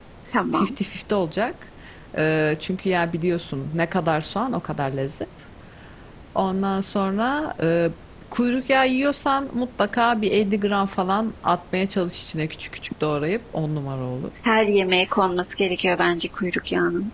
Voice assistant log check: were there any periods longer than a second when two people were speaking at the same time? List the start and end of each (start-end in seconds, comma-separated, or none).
none